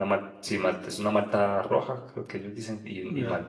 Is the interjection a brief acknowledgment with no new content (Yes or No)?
No